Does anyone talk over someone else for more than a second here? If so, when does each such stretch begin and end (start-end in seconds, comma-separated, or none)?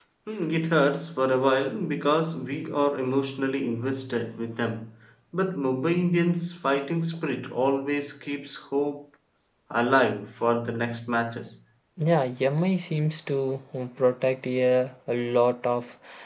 none